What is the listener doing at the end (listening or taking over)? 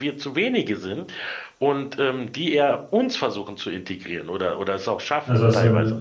taking over